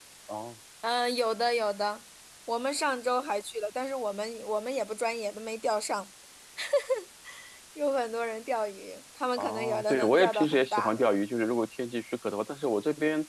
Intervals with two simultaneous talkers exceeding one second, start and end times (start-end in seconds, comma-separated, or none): 9.4-11.2